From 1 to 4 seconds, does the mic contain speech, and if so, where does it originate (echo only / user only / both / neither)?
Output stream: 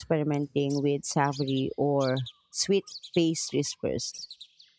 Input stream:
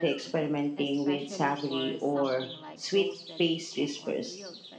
both